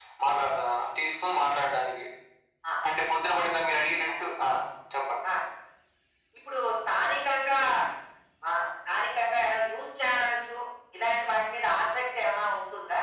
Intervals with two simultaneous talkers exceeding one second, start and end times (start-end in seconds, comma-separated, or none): none